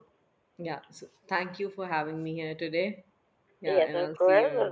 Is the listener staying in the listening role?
No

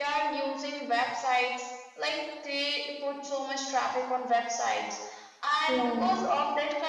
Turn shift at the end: No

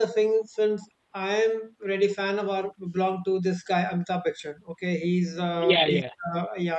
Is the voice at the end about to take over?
No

